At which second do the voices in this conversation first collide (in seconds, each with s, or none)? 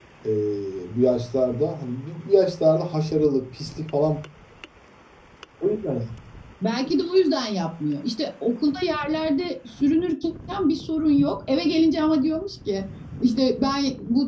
none